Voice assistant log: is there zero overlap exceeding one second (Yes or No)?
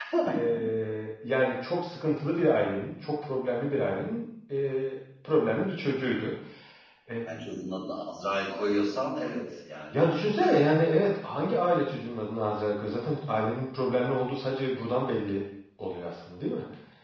Yes